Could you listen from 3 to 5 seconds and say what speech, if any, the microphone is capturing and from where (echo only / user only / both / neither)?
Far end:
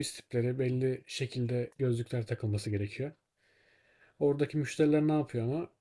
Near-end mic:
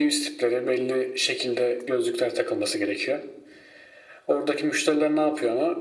echo only